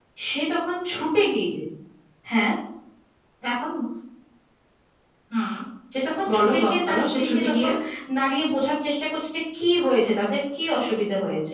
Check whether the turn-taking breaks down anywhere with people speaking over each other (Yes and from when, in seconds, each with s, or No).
Yes, from 6.3 s